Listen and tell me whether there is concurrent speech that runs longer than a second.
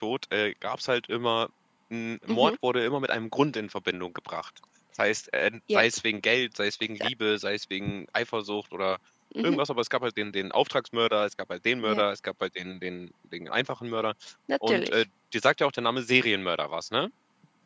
No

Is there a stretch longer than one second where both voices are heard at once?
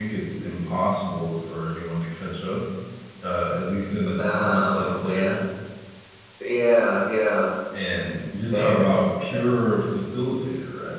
Yes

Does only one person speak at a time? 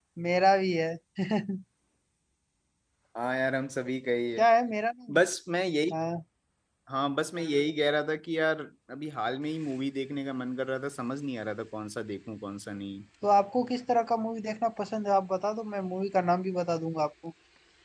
Yes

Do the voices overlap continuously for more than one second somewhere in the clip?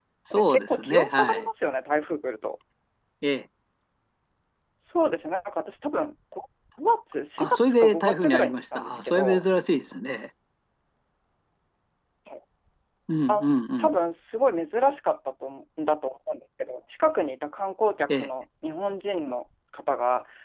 Yes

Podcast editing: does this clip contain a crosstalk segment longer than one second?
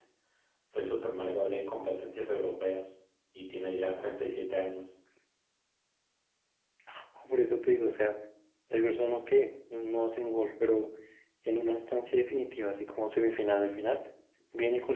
No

